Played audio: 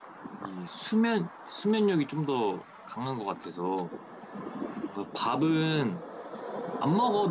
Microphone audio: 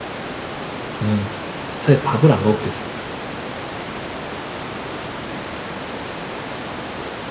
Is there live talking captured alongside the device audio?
Yes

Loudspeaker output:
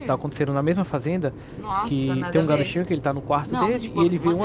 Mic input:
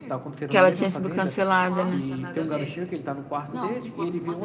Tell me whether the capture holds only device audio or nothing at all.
No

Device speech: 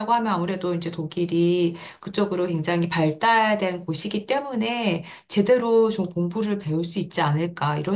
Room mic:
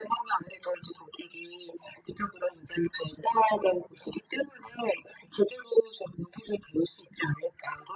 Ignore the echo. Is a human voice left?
No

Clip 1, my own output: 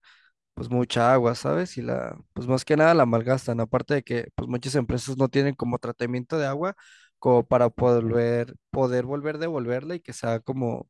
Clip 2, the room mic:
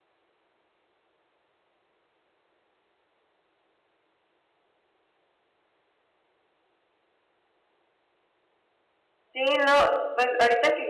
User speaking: Yes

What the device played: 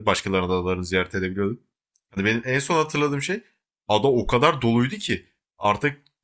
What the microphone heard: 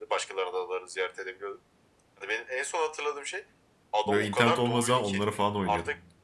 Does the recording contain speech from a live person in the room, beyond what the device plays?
Yes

